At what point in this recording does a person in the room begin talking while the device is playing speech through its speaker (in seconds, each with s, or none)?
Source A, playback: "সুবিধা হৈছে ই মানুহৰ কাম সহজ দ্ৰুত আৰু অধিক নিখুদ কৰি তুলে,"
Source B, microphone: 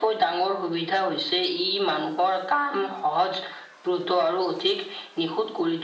none